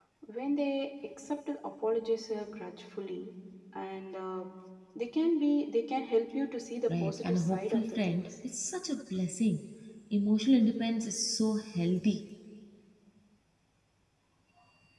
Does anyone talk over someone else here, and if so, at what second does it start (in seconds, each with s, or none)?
6.9 s